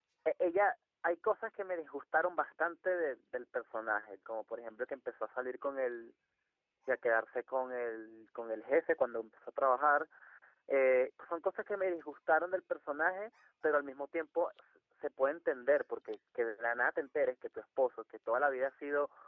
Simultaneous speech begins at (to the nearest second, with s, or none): none